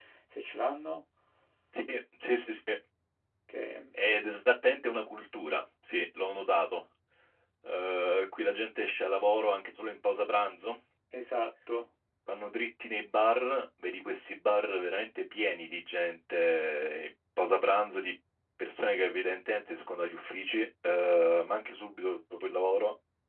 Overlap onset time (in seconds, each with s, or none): none